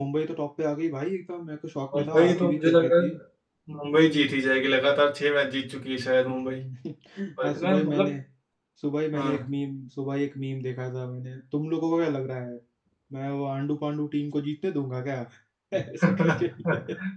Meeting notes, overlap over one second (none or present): present